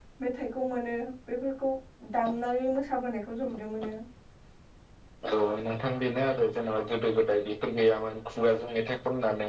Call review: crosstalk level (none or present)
none